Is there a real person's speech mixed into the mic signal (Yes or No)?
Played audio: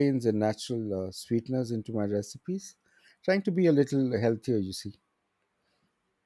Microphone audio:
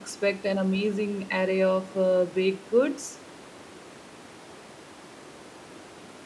Yes